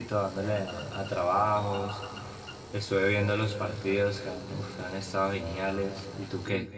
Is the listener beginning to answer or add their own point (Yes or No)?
Yes